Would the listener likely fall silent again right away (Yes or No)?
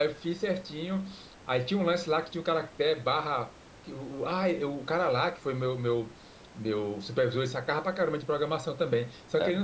Yes